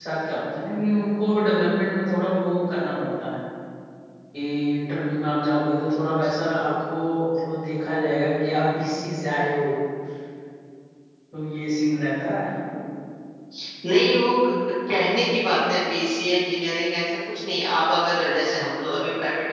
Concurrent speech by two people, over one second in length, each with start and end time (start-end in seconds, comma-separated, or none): none